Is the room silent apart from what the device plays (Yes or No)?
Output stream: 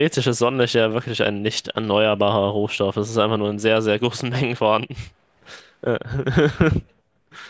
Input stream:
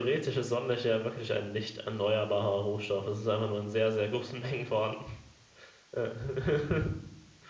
Yes